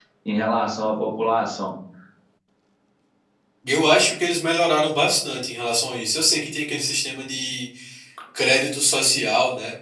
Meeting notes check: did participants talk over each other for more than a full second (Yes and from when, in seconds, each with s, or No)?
No